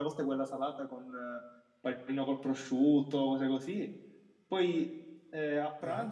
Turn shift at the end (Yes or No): No